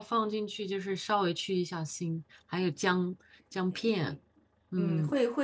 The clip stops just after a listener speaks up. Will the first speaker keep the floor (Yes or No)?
No